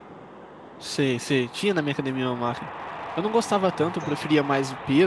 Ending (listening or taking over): listening